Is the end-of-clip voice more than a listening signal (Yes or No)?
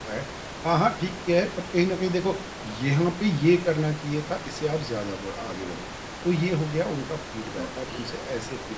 No